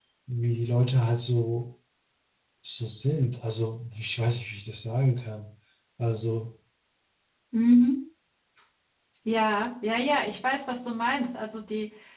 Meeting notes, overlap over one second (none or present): none